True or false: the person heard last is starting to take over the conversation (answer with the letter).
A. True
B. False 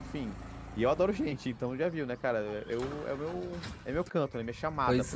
A